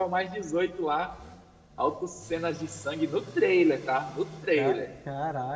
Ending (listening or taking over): taking over